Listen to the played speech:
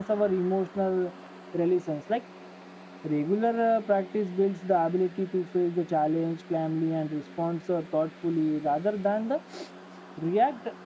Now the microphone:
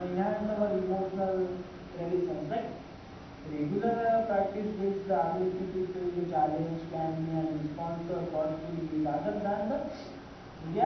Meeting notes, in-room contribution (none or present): none